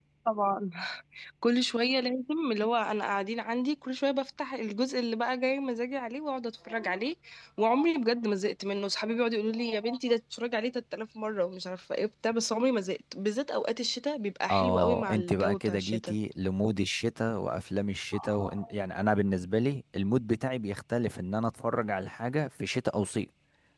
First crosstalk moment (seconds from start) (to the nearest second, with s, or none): 15 s